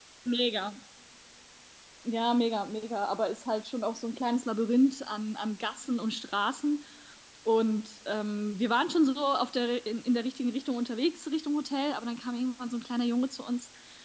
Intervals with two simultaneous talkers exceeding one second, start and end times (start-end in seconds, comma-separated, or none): none